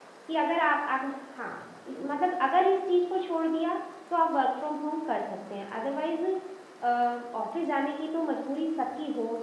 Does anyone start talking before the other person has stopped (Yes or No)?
No